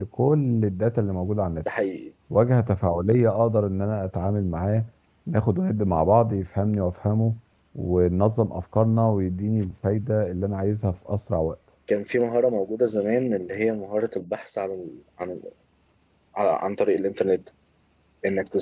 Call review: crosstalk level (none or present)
none